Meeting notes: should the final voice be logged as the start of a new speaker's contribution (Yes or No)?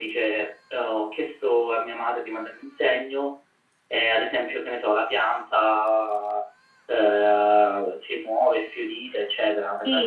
Yes